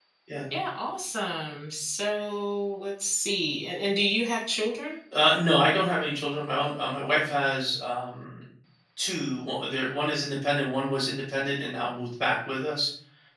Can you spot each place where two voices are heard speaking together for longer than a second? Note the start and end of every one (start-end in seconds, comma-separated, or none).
none